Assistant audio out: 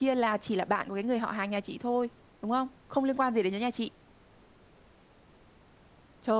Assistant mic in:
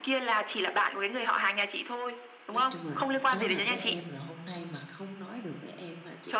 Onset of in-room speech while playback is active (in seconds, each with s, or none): 2.5 s